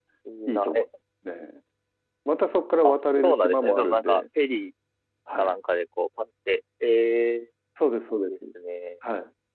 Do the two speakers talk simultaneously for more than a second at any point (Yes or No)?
Yes